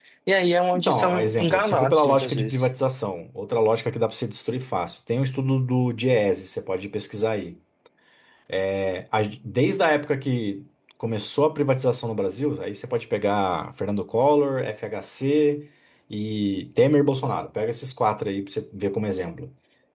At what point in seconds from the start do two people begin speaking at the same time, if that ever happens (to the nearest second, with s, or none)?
1 s